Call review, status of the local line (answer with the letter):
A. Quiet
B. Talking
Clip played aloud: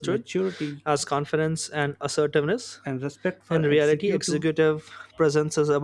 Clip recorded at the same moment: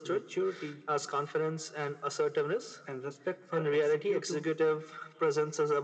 A